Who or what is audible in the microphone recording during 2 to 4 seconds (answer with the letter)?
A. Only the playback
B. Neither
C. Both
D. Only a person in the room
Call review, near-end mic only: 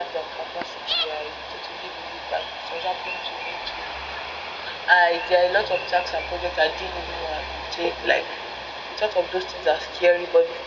A